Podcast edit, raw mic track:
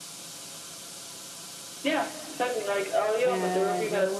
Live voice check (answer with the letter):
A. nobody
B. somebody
B